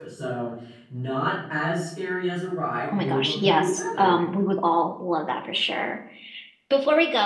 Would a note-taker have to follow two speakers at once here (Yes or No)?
Yes